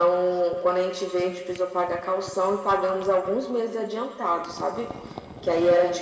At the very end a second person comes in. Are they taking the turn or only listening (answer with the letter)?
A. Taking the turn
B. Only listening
B